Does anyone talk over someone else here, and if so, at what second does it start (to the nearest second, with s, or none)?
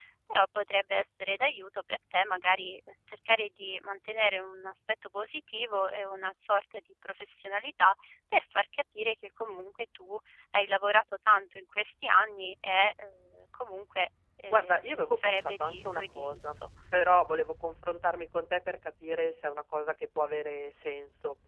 15 s